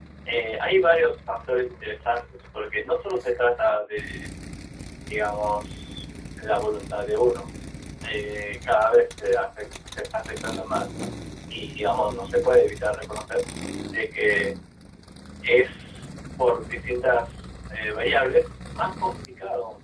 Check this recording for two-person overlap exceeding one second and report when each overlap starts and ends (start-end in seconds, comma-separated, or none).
none